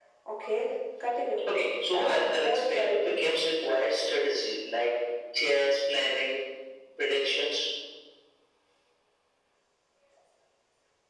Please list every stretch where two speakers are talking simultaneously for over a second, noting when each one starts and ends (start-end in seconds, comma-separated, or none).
1.9-3.2